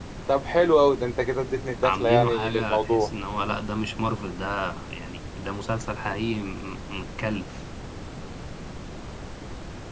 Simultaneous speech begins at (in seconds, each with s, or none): 1.8 s